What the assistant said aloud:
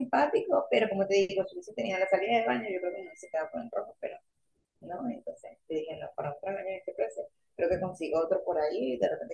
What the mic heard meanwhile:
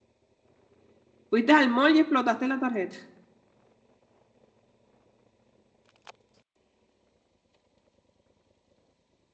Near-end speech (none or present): present